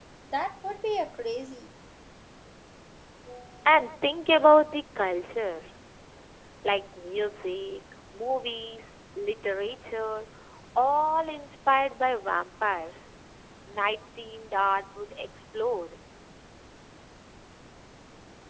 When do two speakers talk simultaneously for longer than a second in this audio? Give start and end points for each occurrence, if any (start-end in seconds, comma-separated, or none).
none